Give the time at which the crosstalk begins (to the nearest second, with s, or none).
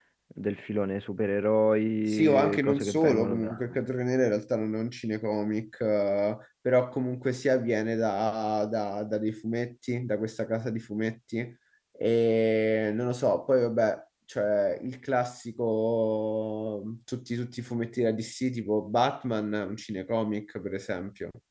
2 s